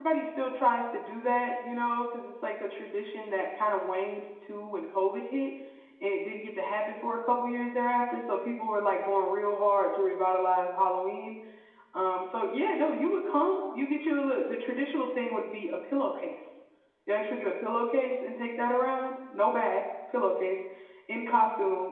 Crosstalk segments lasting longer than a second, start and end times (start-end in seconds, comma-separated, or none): none